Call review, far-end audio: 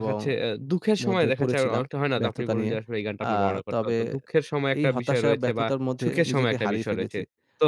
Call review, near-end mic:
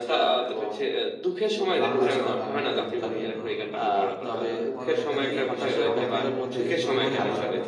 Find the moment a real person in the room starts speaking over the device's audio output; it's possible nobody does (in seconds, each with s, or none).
1.8 s